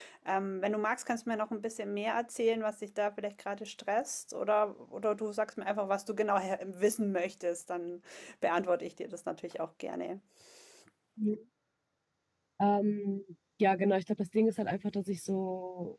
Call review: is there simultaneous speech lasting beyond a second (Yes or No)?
No